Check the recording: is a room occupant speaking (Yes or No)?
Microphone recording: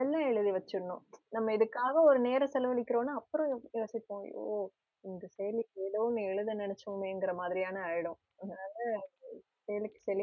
Yes